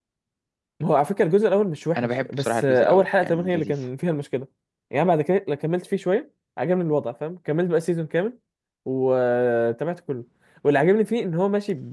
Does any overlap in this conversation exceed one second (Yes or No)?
Yes